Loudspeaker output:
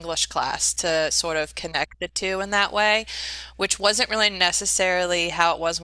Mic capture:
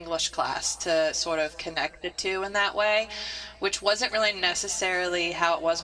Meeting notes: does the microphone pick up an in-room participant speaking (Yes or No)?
No